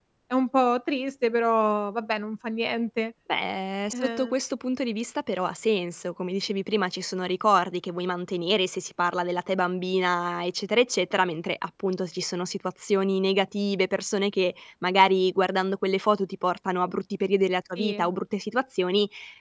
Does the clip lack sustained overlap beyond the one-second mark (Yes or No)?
Yes